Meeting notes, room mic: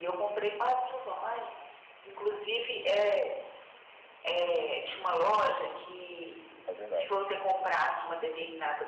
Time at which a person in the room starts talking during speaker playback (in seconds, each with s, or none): 6.6 s